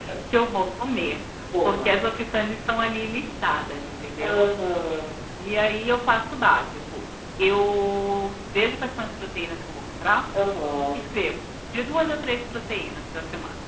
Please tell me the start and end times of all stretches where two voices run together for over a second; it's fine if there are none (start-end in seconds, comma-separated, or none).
none